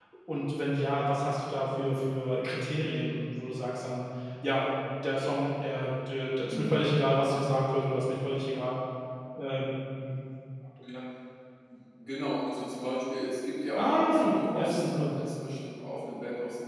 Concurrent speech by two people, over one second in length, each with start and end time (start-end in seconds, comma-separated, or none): 13.8-15.1